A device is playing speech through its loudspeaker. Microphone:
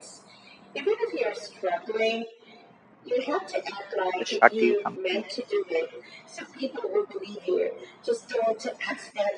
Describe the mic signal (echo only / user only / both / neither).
both